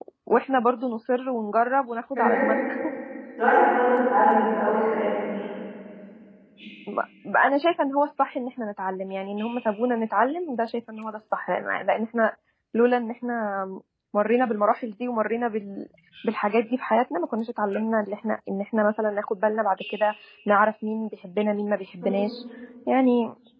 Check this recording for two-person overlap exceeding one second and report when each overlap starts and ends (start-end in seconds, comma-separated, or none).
none